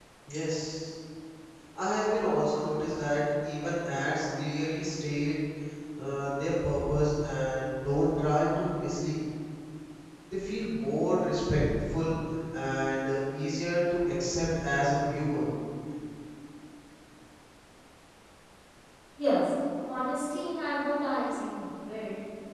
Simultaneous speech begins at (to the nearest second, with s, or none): none